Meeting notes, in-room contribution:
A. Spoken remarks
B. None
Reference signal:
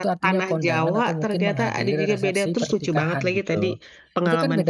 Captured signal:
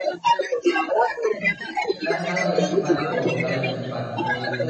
A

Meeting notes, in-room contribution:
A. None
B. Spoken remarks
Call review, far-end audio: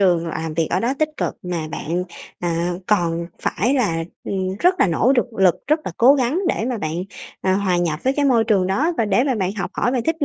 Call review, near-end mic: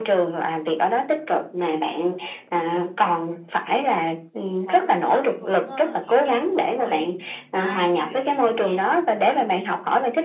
B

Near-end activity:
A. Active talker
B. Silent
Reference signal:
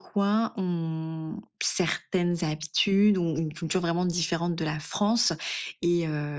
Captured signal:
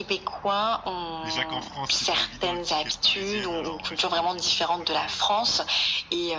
A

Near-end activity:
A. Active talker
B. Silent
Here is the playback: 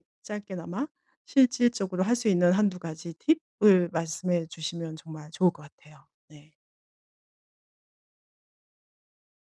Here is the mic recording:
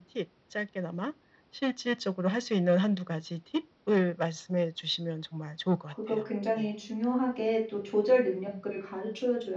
A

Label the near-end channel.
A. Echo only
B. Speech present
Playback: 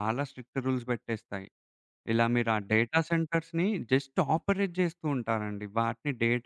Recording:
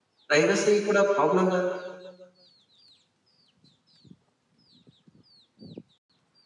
B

